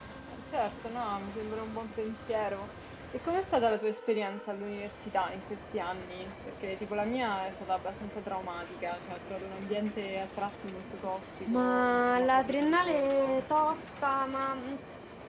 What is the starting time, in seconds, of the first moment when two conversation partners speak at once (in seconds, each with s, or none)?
11.5 s